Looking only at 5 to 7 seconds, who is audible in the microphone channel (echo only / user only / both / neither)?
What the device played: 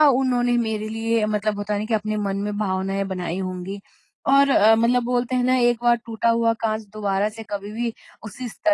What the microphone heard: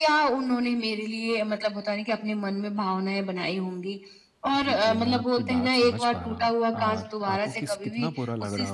both